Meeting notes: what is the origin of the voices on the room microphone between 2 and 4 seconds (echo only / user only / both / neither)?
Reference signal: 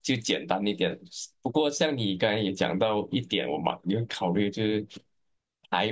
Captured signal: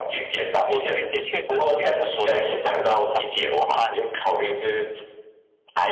both